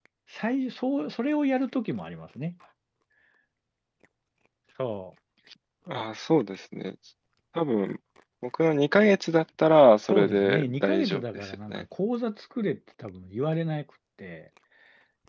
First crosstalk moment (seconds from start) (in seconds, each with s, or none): 10.1 s